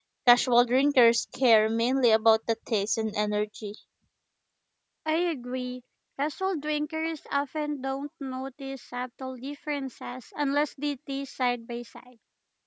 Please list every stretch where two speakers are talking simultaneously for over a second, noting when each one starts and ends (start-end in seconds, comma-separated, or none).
none